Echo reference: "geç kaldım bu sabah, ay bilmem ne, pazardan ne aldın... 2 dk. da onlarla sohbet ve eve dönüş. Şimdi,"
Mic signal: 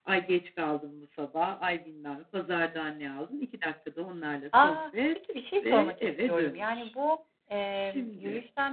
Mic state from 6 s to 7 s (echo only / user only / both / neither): both